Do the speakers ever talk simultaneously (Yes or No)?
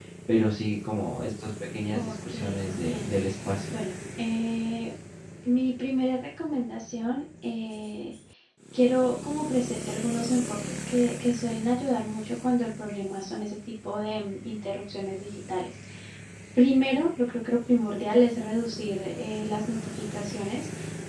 Yes